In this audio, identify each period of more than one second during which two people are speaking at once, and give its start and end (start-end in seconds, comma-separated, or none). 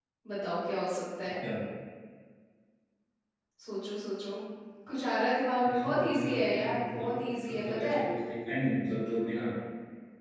5.7-8.0